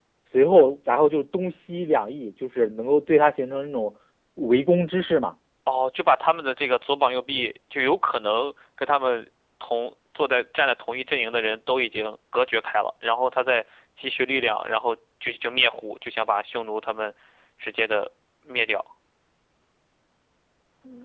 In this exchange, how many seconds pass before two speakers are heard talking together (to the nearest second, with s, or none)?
none